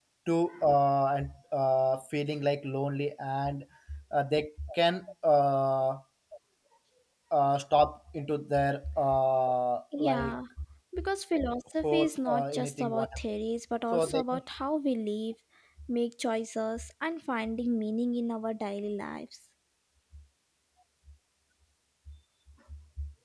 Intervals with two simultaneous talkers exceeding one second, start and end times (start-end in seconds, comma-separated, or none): 11.8-13.1